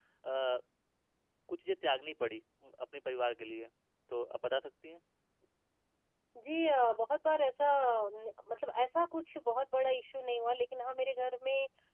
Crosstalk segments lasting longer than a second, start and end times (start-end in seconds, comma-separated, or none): none